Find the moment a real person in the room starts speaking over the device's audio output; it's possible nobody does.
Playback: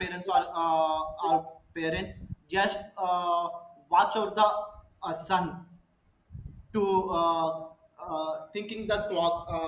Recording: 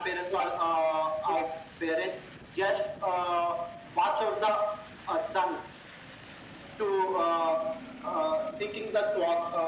none

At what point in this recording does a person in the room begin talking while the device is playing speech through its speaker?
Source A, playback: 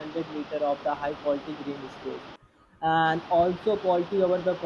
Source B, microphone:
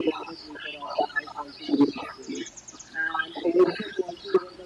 none

